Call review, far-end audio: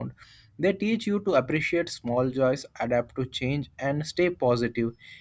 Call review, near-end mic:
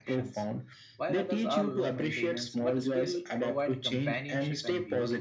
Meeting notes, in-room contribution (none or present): present